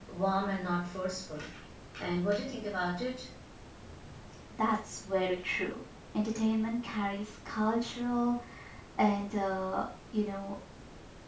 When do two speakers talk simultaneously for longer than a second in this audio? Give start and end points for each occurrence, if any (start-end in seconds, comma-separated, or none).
none